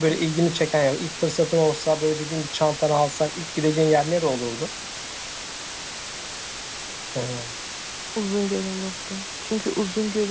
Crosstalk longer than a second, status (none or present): none